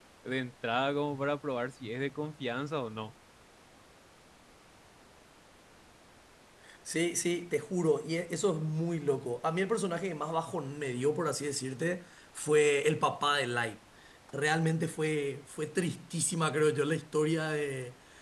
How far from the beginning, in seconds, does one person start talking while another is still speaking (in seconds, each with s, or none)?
none